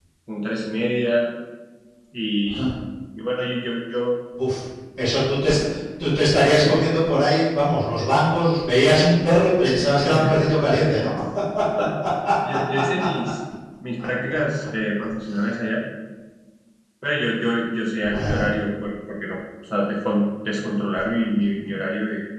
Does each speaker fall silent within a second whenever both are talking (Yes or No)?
Yes